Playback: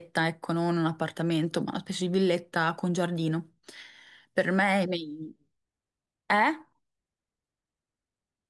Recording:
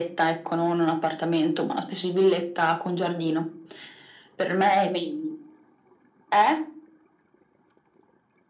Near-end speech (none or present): none